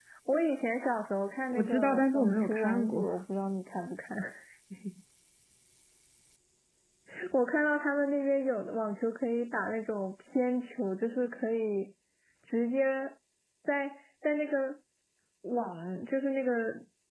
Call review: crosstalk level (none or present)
present